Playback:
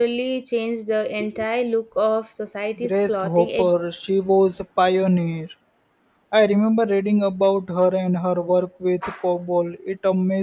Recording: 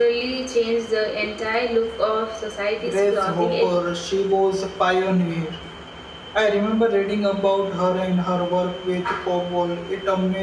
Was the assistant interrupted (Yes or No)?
No